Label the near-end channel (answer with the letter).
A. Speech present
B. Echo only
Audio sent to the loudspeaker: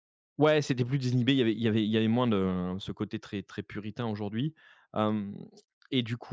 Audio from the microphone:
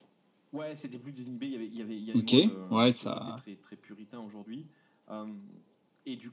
A